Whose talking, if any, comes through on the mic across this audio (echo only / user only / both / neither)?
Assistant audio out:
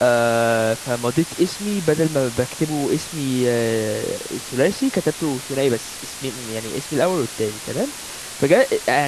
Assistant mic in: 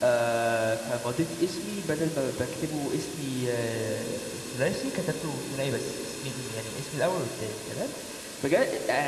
echo only